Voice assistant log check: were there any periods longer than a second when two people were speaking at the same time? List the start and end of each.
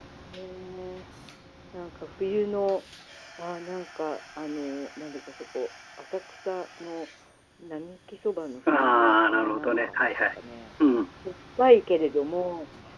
8.7-10.0

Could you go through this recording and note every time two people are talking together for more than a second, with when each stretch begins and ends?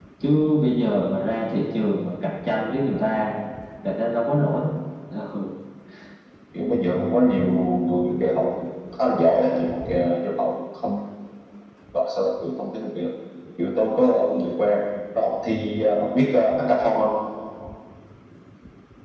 none

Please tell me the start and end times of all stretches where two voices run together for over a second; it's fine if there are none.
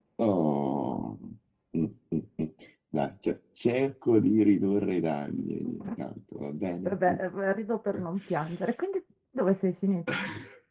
none

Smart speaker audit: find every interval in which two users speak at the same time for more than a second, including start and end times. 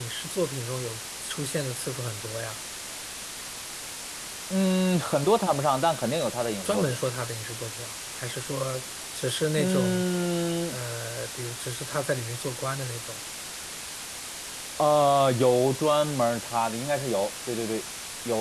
none

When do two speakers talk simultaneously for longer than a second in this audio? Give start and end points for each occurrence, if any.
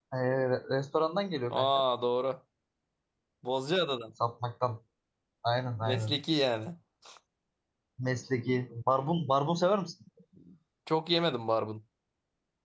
none

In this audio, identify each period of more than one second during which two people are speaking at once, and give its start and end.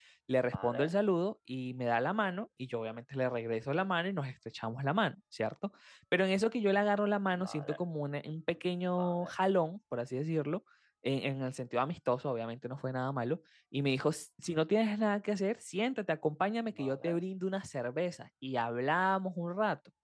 none

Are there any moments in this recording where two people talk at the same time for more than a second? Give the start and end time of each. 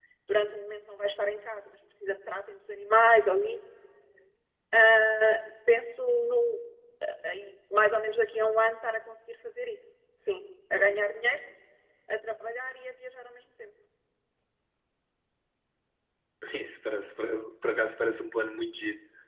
none

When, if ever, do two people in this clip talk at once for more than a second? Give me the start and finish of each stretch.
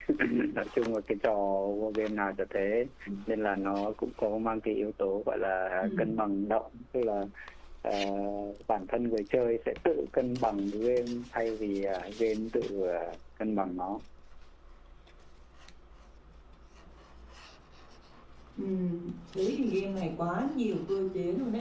none

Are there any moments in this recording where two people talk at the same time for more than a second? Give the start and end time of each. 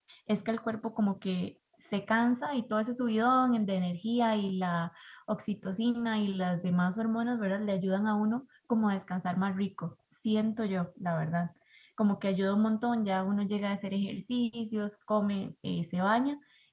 none

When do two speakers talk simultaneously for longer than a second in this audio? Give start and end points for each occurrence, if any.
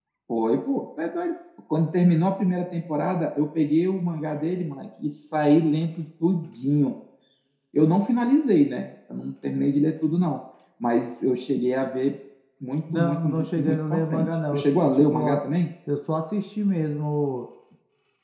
12.9-15.4

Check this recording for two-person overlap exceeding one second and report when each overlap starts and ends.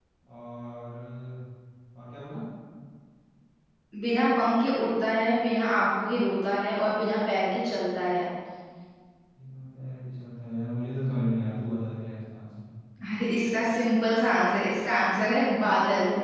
none

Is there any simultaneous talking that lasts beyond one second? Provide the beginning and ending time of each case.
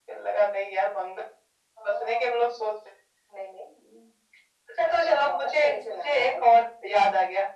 5.0-6.3

